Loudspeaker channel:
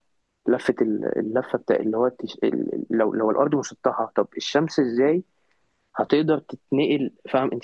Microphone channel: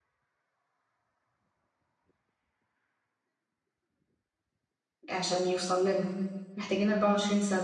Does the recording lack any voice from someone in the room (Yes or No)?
No